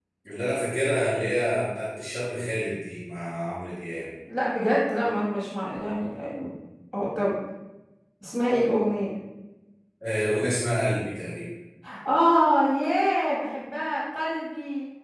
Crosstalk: none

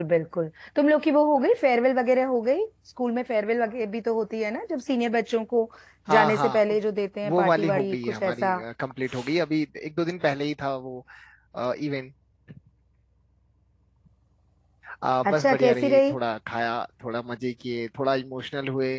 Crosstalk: present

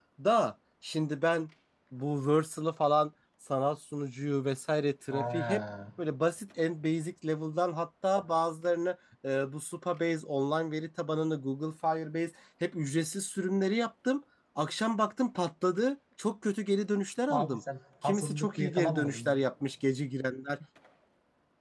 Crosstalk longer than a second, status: present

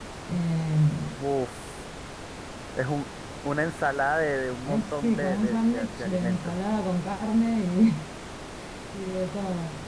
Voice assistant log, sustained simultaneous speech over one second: present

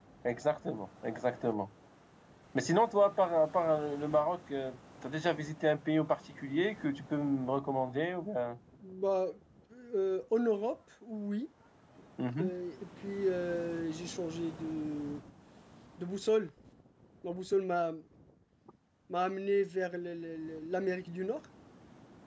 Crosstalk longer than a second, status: none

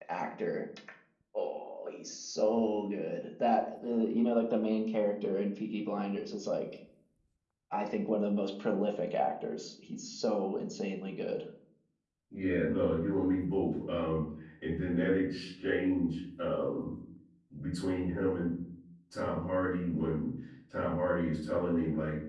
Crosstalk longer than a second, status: none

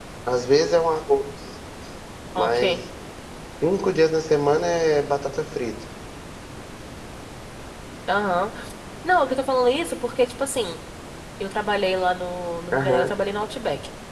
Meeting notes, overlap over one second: none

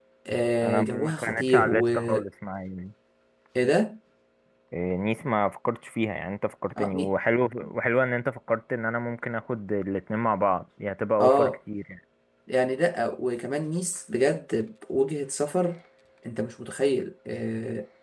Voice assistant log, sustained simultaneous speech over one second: present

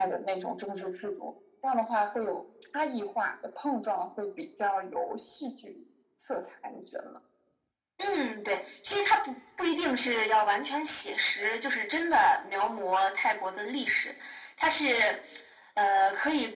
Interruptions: none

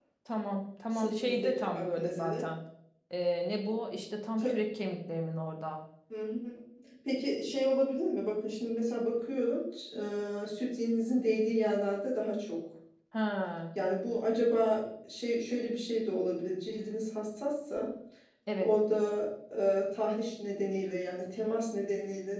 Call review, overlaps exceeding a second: present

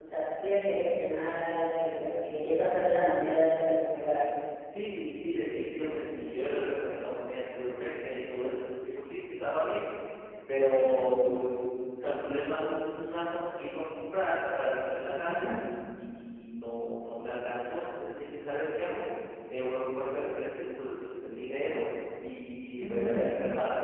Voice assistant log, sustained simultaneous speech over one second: none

